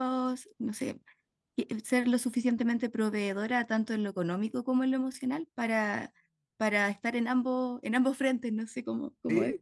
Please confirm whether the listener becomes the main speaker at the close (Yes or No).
Yes